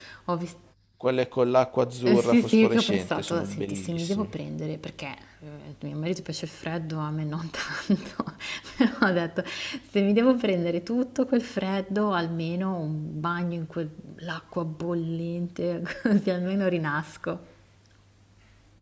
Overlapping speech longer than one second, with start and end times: 2.0-4.3

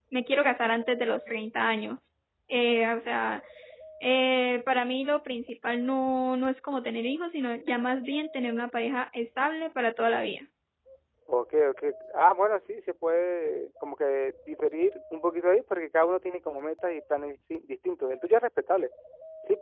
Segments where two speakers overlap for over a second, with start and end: none

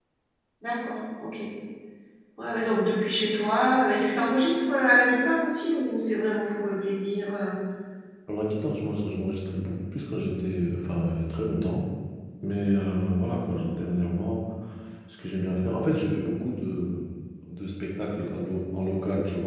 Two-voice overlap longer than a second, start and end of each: none

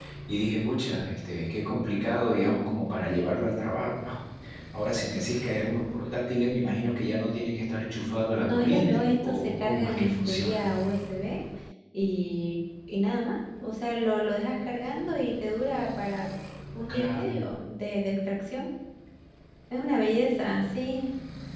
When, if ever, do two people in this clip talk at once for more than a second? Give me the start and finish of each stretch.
8.4-10.7

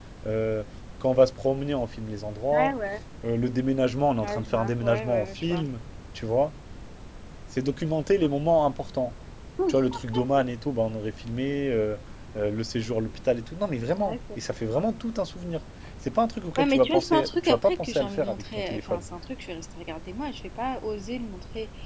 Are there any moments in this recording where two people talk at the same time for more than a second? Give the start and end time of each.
4.2-5.6, 16.6-19.1

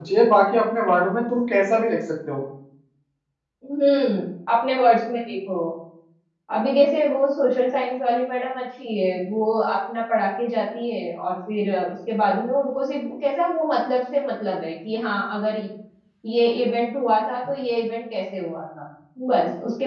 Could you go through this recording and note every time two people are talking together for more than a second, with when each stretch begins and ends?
none

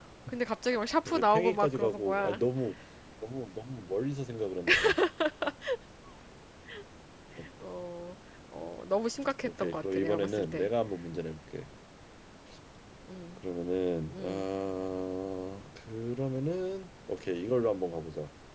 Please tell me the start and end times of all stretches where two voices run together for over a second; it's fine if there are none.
1.1-2.4, 9.4-10.7

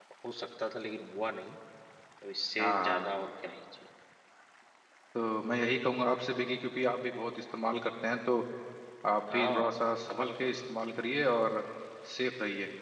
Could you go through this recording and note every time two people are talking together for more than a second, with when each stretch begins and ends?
none

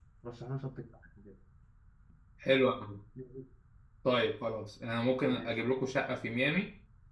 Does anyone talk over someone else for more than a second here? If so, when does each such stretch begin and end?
none

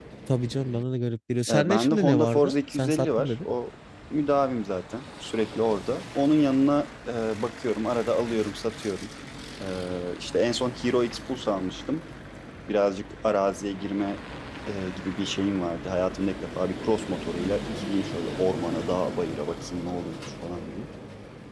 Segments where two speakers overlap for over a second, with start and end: 1.5-3.3

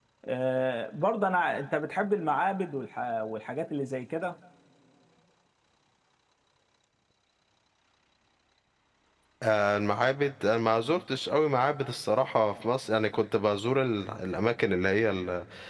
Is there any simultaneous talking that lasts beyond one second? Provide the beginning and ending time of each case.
none

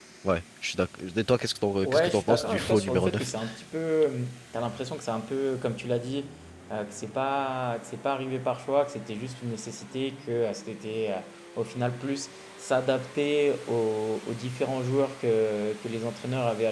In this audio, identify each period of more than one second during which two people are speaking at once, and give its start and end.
1.8-3.3

